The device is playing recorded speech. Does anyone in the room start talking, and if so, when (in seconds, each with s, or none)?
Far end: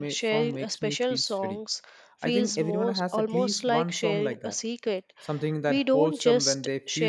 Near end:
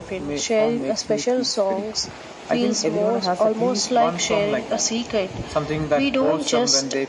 none